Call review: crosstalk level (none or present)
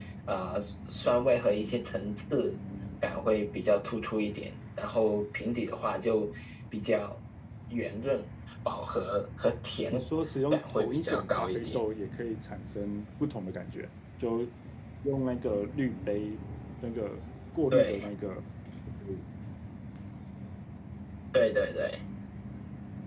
present